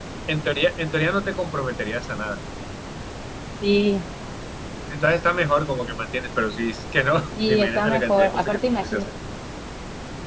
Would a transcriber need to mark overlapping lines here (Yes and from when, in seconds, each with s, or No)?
Yes, from 7.4 s